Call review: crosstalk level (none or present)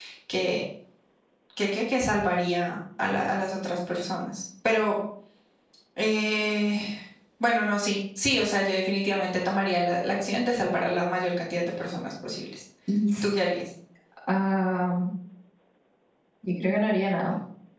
none